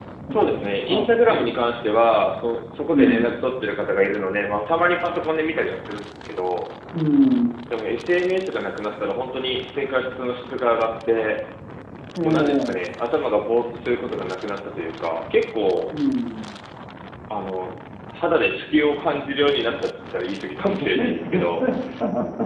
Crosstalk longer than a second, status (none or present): present